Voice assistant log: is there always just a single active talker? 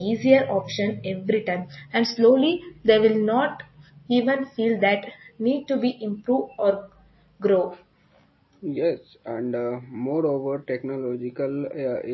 Yes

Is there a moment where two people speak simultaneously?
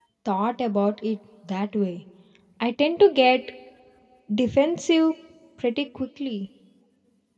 No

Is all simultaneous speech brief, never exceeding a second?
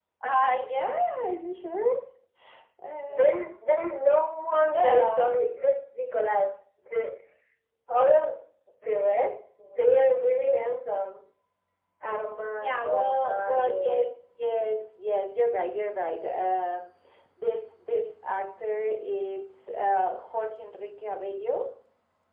No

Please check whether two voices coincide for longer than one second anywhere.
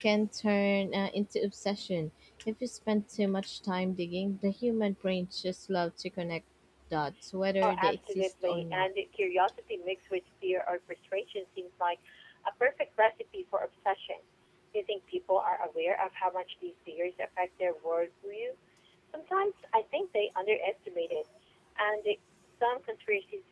Yes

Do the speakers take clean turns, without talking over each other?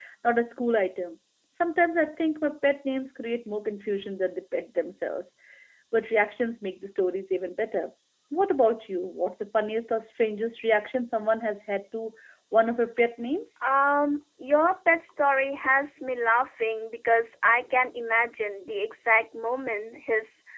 Yes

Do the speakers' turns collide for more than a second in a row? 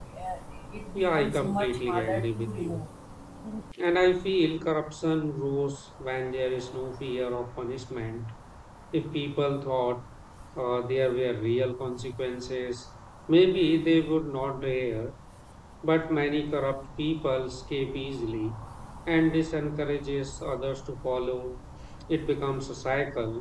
Yes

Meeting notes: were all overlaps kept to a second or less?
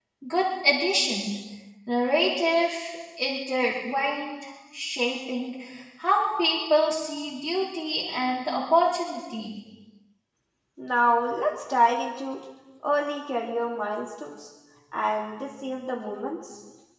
Yes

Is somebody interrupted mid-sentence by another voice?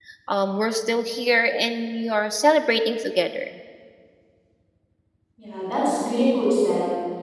No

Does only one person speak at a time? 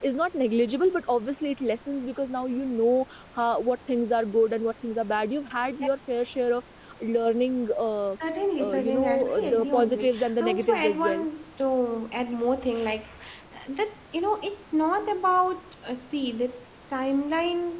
No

